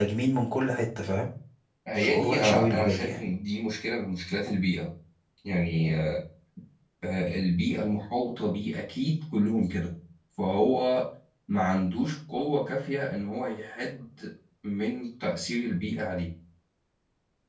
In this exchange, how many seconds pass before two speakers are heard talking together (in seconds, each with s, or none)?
1.9 s